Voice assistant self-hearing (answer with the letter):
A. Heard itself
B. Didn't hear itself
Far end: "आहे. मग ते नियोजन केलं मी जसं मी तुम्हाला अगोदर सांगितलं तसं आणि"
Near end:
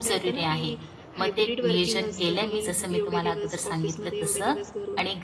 A